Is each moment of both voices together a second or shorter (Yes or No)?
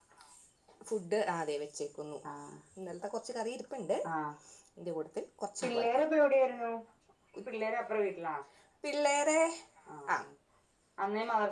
Yes